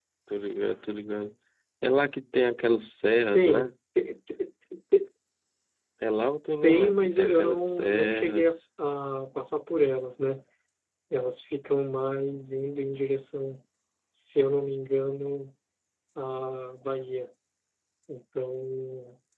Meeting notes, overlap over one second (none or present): present